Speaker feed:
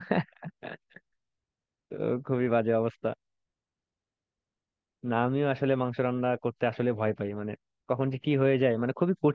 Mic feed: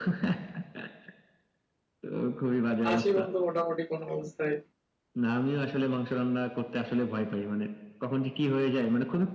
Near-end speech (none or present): present